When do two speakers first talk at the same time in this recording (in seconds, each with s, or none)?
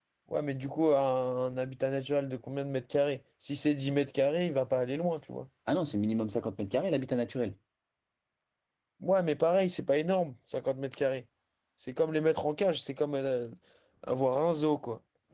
none